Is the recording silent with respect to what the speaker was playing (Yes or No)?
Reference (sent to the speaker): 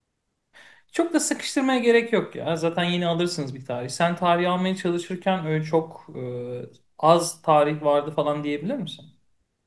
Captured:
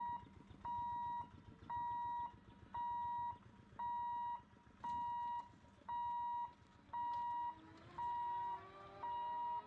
Yes